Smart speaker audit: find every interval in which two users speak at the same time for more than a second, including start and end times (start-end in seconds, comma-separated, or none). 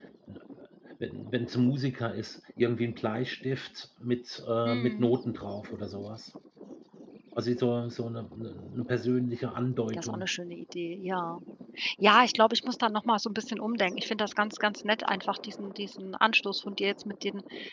none